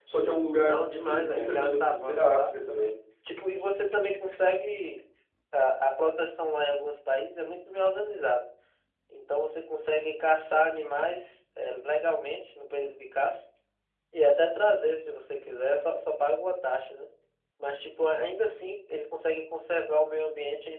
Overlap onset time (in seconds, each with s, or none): 0.6 s